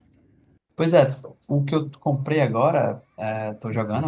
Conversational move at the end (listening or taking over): listening